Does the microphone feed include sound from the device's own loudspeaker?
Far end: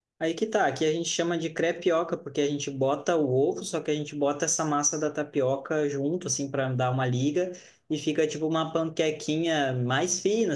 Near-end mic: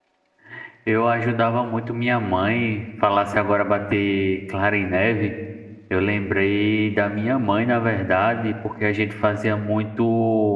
No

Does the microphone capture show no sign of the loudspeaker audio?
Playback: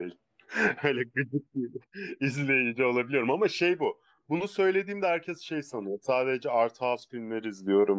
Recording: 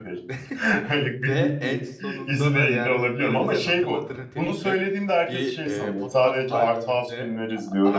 No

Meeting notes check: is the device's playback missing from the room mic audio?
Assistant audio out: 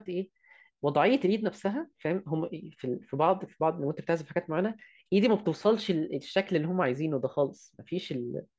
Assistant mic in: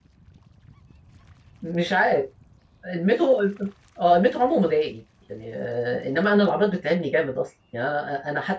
Yes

